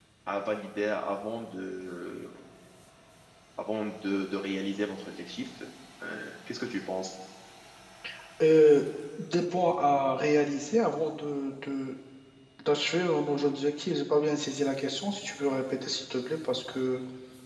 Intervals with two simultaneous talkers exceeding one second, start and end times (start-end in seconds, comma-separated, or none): none